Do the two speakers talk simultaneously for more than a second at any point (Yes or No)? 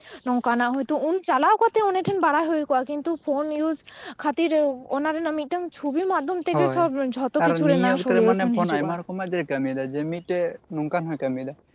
Yes